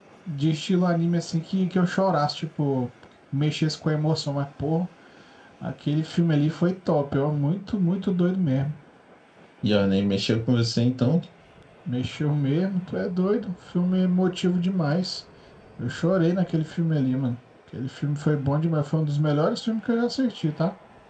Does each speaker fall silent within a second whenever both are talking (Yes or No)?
Yes